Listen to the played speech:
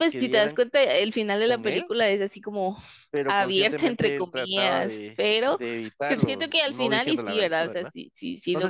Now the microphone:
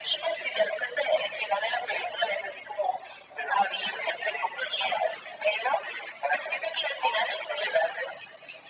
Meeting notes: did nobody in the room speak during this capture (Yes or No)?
Yes